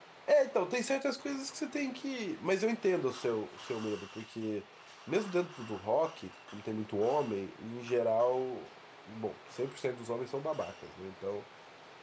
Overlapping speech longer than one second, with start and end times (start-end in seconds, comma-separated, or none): none